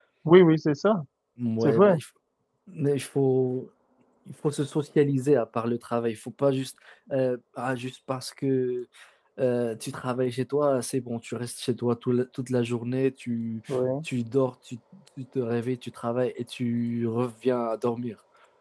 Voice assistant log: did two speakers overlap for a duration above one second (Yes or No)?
No